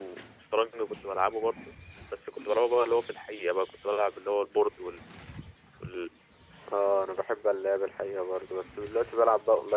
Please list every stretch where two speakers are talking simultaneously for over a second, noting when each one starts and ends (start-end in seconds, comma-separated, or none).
none